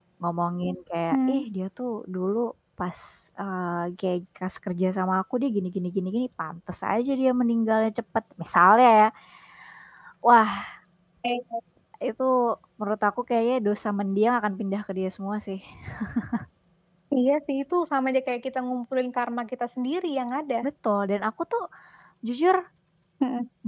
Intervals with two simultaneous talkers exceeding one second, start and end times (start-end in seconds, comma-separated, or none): none